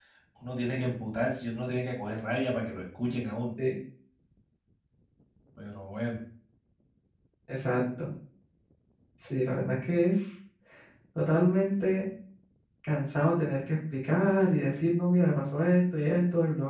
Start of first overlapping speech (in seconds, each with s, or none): none